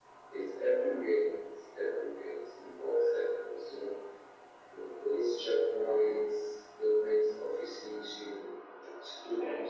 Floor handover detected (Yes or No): No